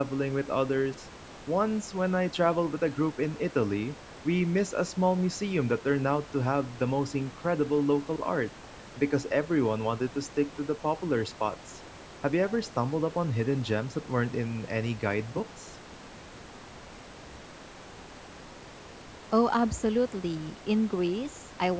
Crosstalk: none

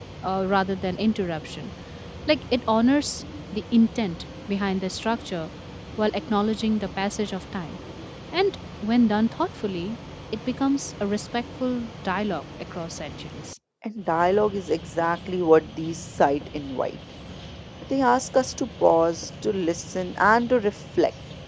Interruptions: none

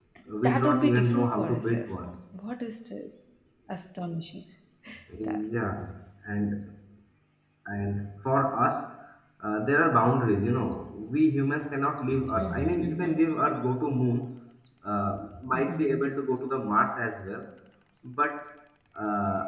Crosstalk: present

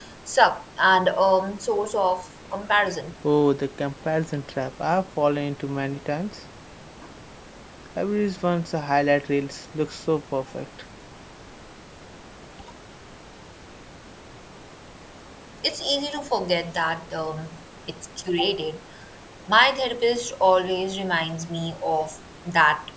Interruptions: none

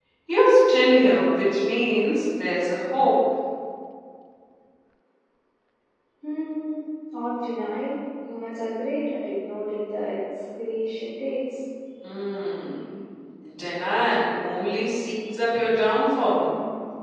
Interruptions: none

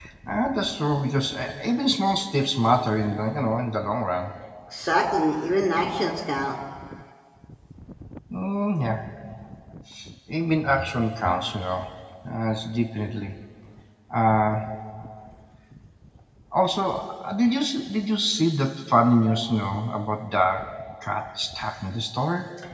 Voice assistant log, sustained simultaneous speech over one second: none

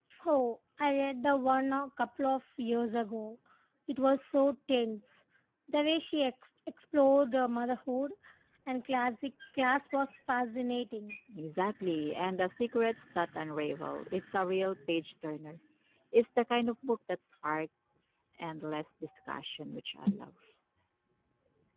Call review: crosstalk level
none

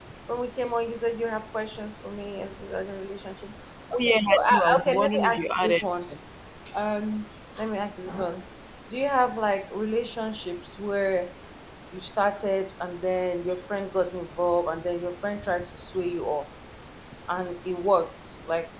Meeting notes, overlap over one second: present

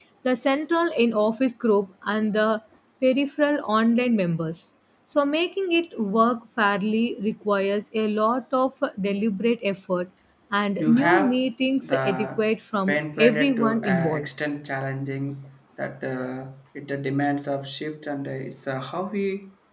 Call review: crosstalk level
present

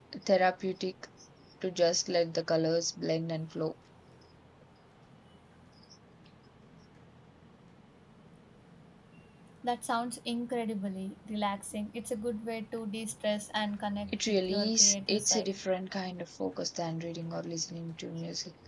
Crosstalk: present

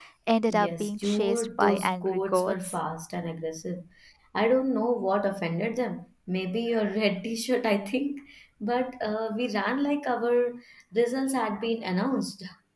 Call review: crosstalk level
present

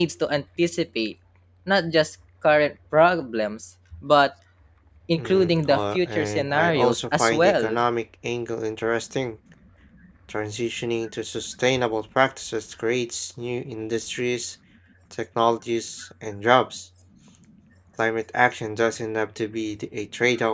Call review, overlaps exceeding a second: present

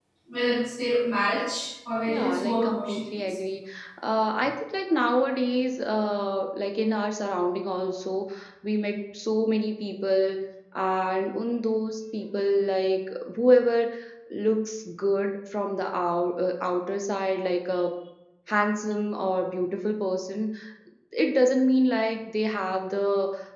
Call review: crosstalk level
present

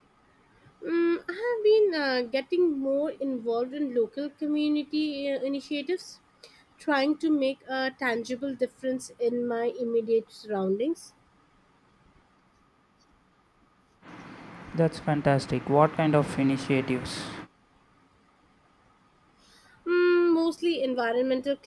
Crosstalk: none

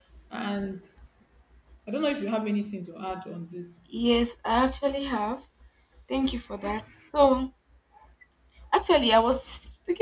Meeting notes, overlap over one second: none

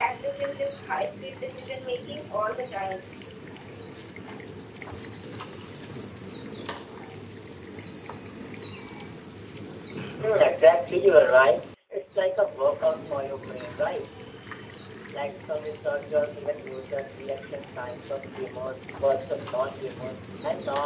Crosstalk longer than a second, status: none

